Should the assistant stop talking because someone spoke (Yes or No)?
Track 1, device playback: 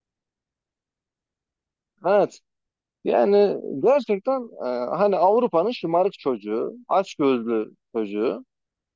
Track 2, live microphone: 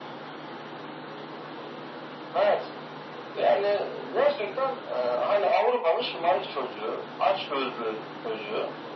No